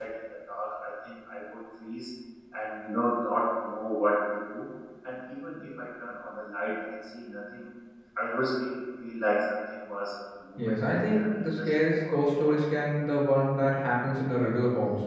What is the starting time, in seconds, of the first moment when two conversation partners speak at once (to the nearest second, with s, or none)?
11 s